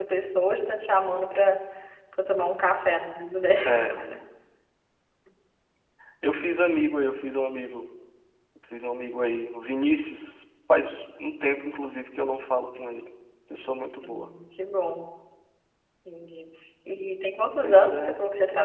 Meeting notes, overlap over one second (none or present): none